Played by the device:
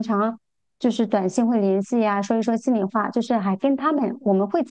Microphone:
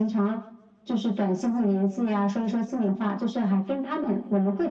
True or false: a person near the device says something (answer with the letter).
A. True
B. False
B